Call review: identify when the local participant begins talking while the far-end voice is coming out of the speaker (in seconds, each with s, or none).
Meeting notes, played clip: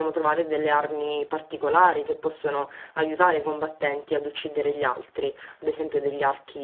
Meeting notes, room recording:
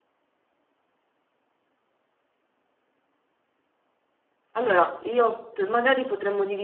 4.6 s